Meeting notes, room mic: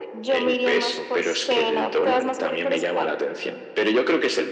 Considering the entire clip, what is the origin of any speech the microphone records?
echo only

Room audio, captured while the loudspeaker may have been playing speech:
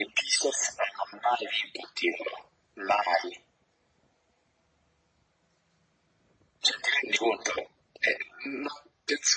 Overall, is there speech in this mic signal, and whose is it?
echo only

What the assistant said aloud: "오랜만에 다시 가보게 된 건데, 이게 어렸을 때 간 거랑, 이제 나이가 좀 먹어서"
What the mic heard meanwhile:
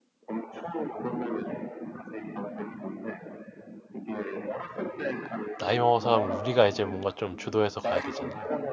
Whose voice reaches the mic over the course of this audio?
both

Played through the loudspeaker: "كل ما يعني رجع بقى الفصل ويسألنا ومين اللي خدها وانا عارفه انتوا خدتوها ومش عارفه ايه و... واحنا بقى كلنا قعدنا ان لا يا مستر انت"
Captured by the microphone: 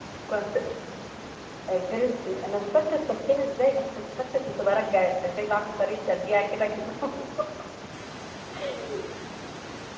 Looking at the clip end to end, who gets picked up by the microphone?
user only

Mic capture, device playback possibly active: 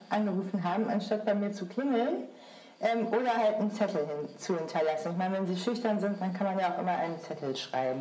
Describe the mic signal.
echo only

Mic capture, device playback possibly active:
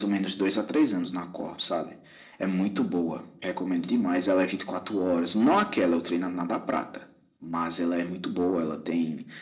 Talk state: echo only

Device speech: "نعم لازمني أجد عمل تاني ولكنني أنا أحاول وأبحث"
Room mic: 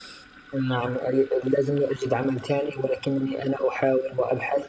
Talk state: echo only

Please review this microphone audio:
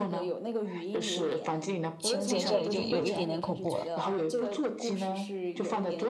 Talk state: both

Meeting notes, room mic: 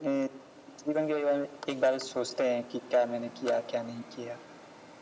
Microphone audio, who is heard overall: echo only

